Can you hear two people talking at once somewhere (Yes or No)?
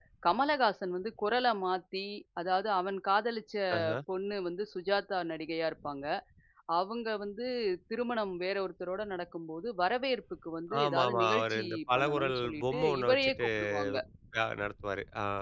Yes